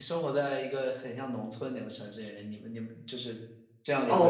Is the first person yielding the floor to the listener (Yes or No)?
Yes